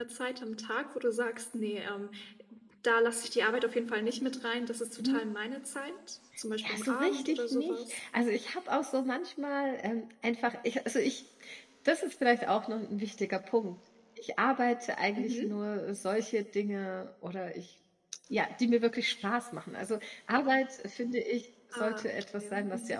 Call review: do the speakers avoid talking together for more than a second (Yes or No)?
No